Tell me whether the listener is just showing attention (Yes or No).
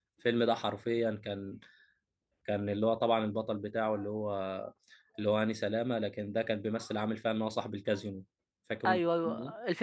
No